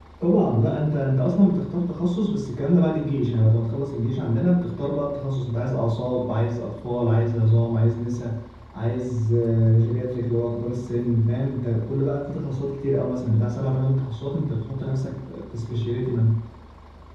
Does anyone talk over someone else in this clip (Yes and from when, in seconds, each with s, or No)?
No